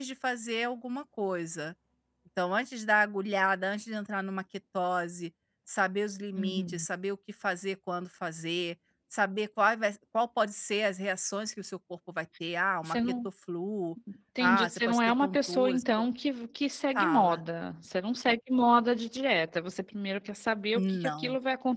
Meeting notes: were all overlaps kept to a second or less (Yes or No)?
No